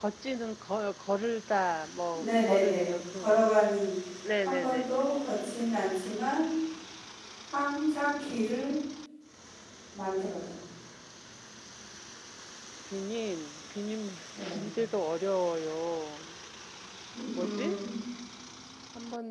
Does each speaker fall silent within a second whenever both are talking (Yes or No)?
No